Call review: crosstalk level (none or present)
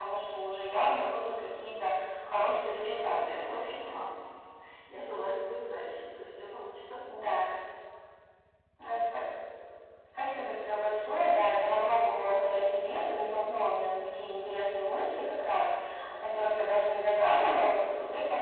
present